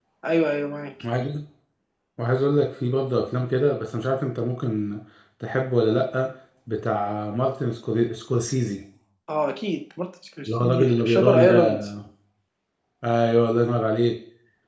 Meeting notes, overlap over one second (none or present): present